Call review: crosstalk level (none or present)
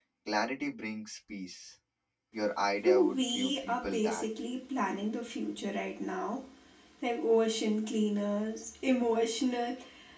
present